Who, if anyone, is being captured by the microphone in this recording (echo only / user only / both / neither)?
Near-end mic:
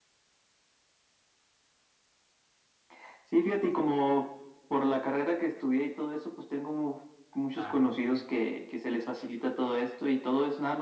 both